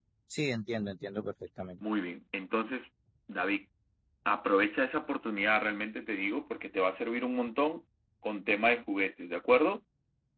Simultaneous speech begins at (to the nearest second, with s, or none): none